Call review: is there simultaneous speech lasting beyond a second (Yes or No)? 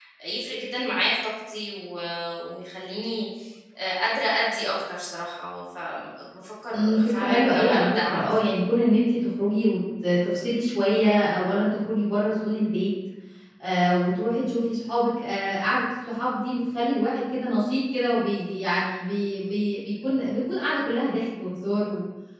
Yes